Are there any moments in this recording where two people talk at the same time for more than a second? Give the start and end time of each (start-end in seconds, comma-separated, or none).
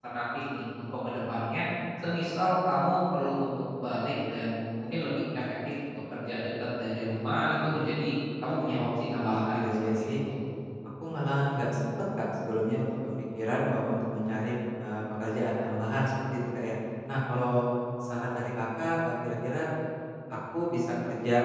8.8-10.1